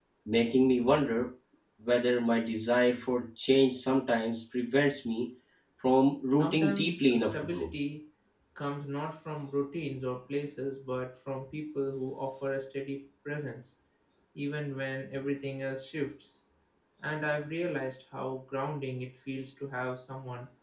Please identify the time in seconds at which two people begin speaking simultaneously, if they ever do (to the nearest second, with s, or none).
6 s